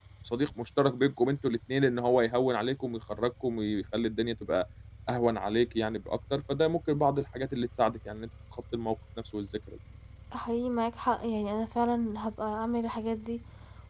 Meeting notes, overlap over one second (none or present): none